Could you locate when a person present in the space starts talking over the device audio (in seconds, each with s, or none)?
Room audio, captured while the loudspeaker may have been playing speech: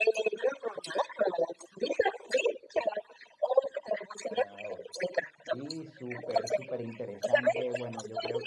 4.3 s